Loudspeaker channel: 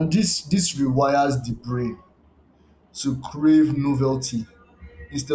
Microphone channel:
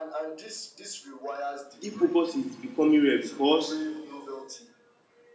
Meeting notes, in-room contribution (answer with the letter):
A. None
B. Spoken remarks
B